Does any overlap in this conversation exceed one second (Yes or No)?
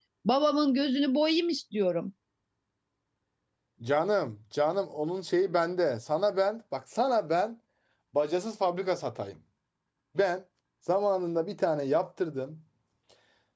No